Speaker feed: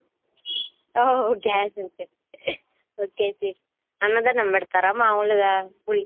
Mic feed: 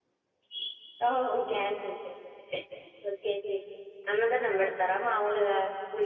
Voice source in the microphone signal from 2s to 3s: echo only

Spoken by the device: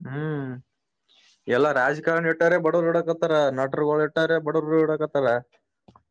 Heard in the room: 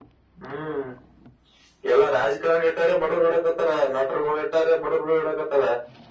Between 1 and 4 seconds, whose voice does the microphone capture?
echo only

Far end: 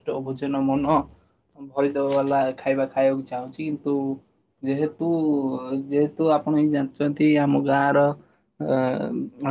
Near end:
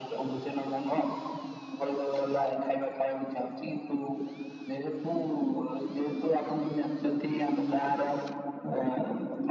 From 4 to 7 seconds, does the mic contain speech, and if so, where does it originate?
echo only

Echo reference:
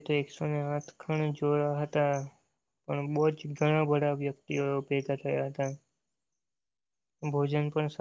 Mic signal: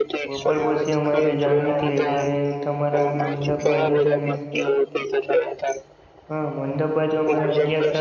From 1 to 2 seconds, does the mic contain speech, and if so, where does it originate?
both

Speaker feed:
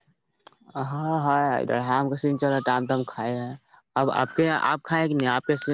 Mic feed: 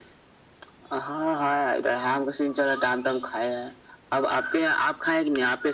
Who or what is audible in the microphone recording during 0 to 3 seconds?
echo only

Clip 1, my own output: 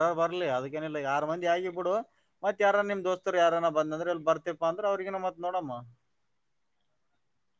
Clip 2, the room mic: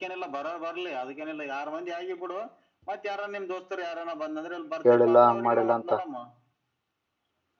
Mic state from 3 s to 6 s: both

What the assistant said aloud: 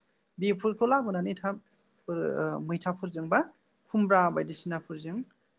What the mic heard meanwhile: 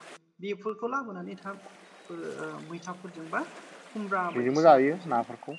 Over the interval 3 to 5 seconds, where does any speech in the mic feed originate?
both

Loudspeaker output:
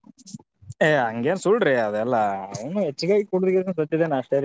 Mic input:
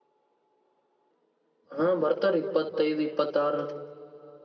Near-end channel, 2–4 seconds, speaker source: user only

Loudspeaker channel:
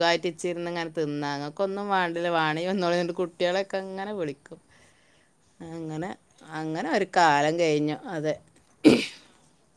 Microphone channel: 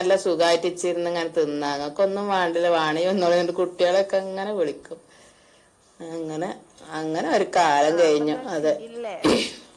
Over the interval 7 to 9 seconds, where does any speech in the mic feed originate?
both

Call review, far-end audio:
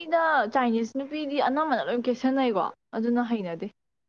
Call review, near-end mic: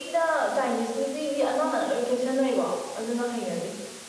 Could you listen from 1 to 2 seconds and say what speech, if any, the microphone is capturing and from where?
echo only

